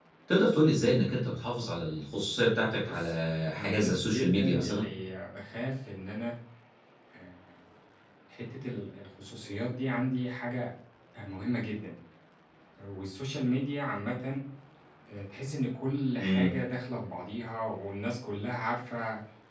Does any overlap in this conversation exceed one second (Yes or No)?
Yes